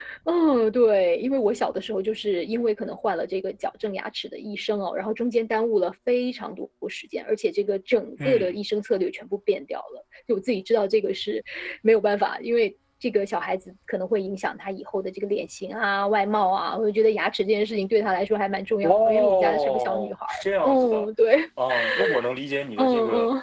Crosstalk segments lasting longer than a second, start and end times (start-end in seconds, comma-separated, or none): 18.9-21.1